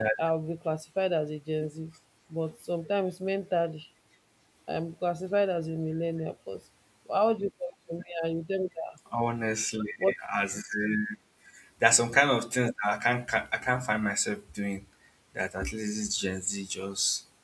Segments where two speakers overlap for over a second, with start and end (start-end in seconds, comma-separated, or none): none